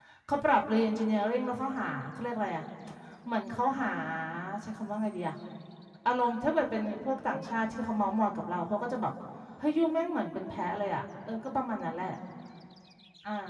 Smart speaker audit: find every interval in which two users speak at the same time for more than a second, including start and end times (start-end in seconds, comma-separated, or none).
none